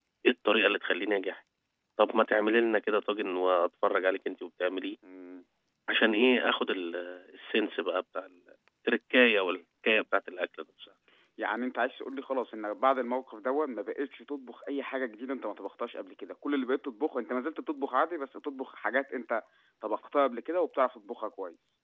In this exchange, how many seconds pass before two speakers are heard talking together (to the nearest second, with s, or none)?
none